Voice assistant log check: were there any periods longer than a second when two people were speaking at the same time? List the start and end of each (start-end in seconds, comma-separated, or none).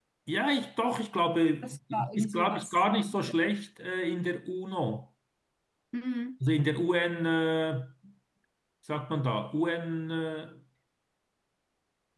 1.6-3.3